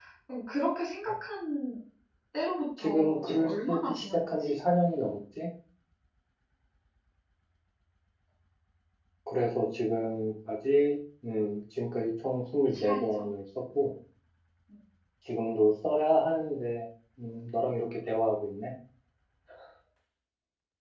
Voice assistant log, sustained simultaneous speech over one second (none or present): present